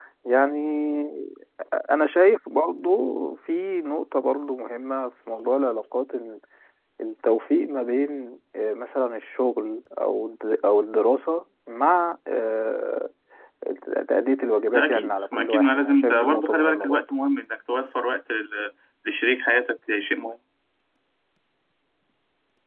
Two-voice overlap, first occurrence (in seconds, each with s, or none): 14.7 s